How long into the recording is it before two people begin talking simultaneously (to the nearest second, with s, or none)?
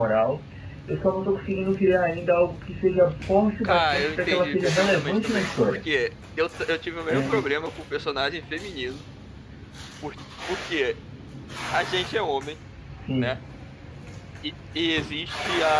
4 s